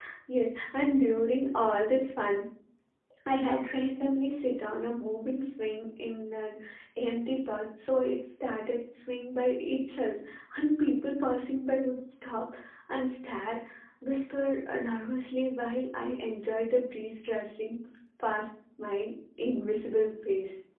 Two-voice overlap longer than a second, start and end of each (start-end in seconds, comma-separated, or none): none